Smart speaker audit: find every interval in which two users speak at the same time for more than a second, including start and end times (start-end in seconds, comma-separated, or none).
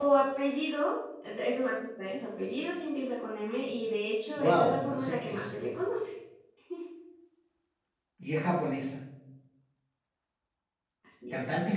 4.4-5.7